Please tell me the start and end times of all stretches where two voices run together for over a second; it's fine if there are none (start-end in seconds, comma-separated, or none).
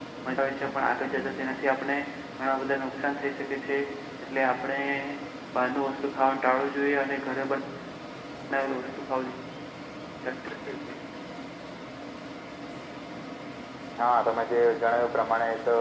none